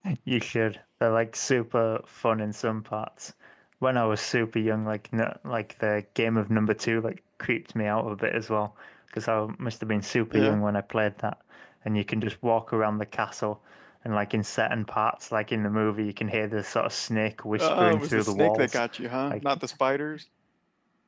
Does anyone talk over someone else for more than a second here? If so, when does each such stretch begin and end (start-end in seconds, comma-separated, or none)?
17.6-18.8